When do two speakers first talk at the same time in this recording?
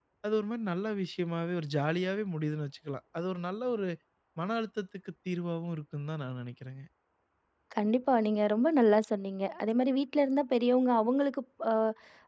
none

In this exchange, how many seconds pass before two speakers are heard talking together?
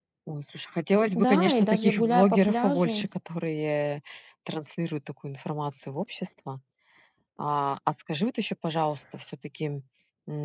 1 s

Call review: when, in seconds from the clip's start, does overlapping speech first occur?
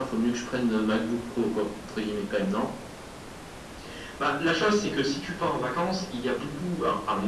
none

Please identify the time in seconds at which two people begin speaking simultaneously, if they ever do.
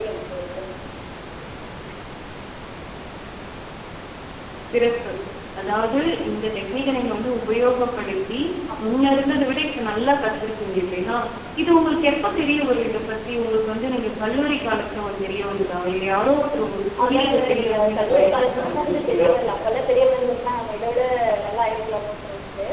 17 s

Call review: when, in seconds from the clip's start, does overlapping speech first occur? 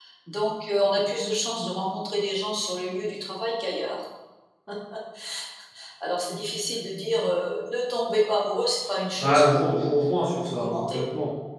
9 s

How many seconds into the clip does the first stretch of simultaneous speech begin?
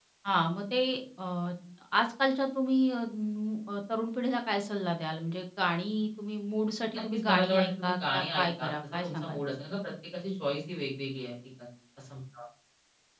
7 s

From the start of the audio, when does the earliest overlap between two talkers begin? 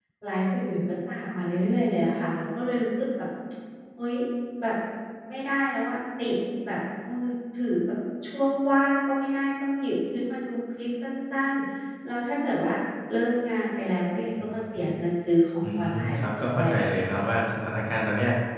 16 s

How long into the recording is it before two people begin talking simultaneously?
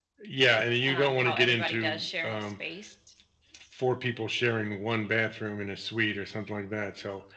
1 s

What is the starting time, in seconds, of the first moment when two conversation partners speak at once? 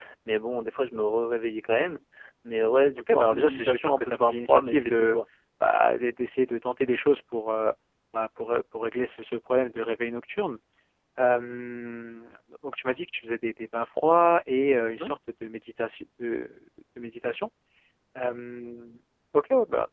3 s

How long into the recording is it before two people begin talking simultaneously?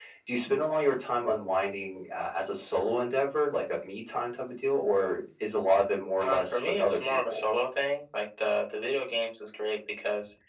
6 s

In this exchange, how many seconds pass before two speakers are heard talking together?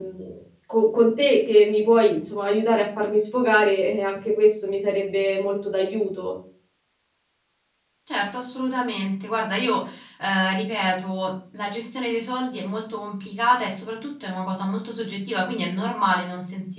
none

